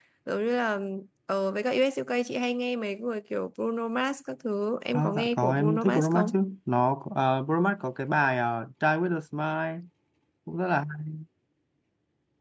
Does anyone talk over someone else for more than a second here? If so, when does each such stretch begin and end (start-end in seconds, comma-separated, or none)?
4.9-6.4